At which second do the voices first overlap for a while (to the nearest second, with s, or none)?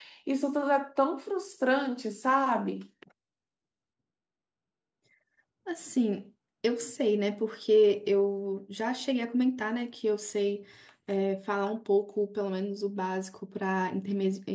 none